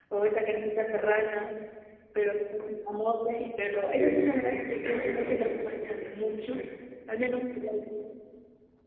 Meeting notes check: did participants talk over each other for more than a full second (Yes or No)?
Yes